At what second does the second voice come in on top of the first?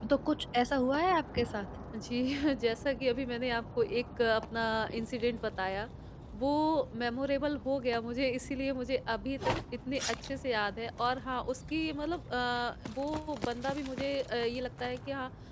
none

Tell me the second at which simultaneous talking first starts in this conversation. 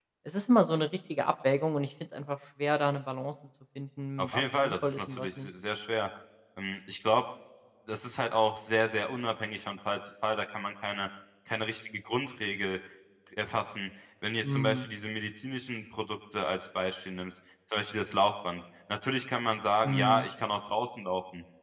4.2 s

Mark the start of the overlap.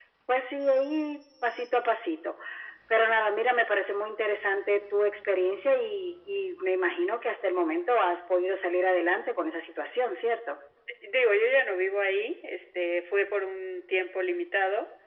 none

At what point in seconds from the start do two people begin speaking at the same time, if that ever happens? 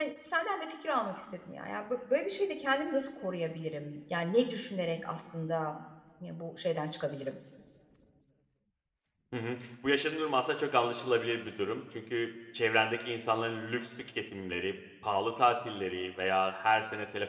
none

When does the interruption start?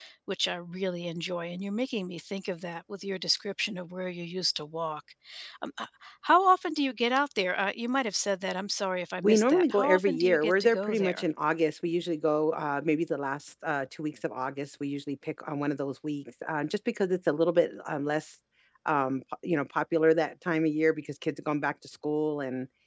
9.2 s

